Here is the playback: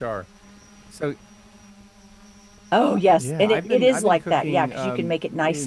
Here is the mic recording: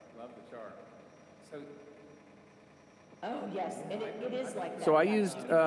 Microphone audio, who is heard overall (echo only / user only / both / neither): both